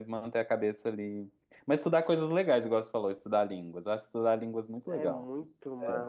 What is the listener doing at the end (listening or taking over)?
taking over